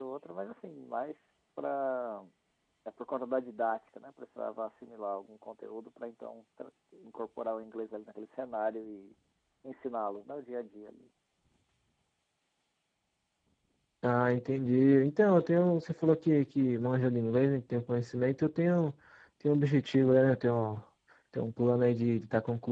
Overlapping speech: No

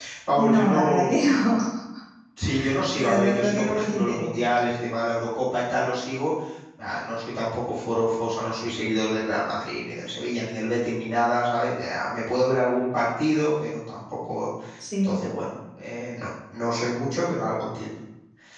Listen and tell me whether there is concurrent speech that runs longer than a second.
Yes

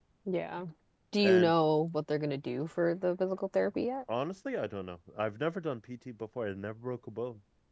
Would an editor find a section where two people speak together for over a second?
No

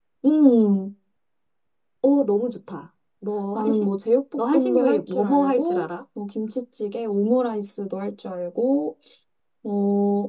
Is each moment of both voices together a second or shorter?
No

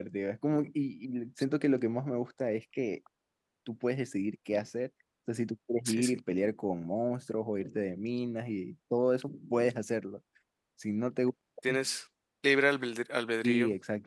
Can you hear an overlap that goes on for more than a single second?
No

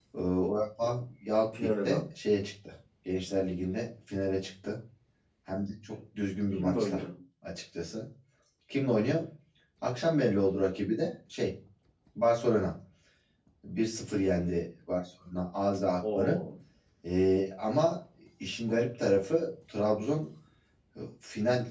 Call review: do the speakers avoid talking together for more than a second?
Yes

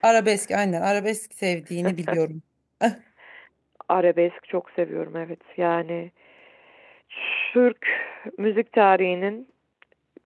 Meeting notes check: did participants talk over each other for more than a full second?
No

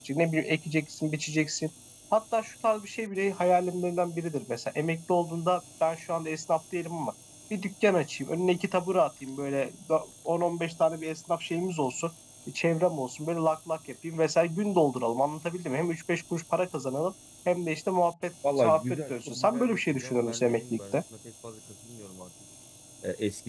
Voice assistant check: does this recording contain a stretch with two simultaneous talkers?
Yes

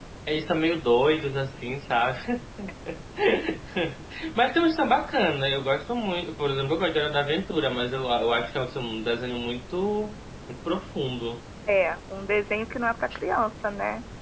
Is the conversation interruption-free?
Yes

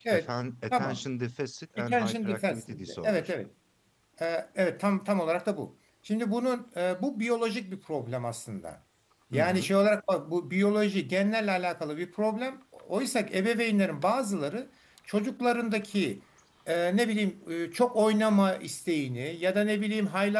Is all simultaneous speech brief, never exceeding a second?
No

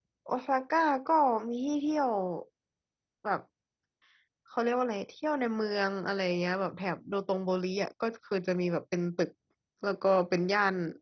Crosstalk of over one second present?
No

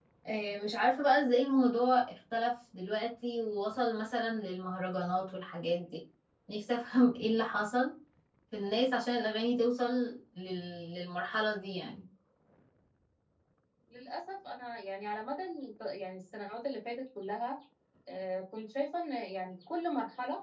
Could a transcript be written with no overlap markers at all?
Yes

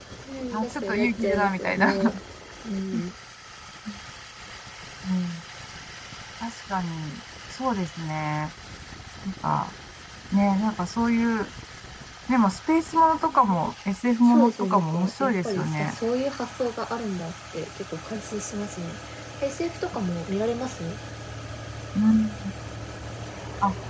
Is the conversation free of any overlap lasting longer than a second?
No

